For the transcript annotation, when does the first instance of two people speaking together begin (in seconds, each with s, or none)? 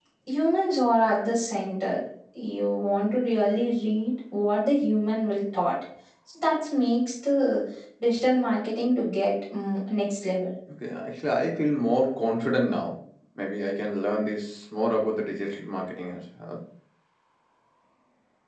none